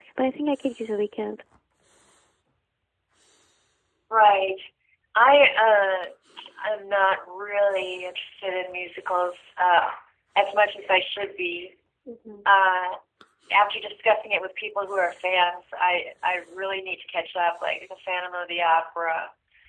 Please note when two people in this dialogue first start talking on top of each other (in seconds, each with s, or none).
none